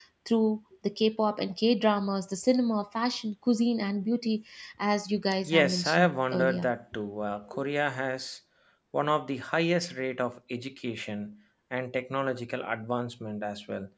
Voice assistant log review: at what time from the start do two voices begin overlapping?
5 s

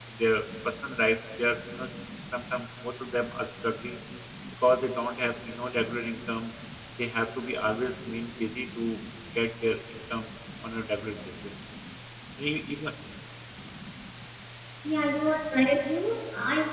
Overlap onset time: none

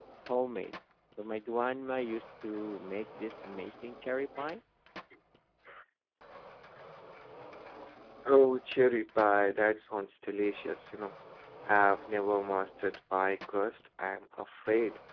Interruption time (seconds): none

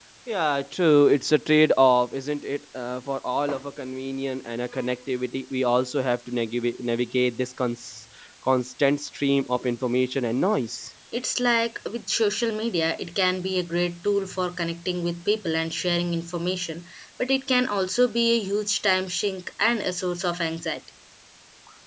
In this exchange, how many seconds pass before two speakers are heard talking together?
none

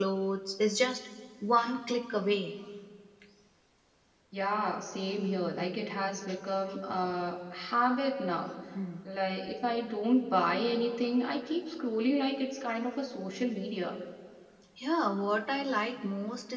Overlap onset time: none

